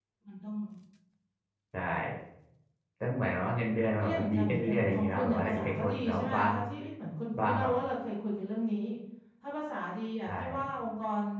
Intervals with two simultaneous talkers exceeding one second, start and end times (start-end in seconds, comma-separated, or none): 4.0-6.5